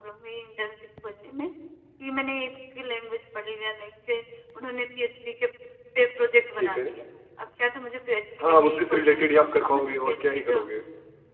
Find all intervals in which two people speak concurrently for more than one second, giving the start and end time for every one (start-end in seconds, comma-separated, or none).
8.4-10.6